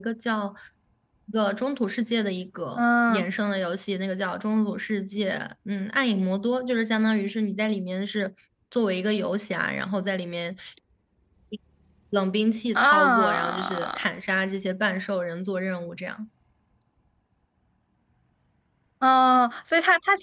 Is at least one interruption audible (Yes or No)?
Yes